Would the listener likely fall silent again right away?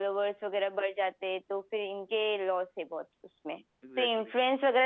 Yes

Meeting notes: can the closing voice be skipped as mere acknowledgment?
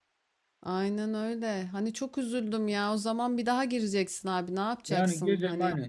No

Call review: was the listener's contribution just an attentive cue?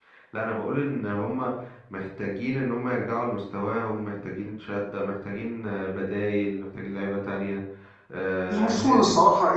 No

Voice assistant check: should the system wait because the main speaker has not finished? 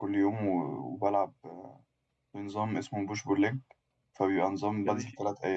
Yes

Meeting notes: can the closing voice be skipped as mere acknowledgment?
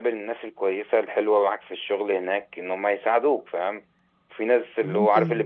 Yes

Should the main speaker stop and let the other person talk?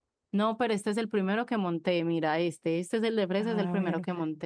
Yes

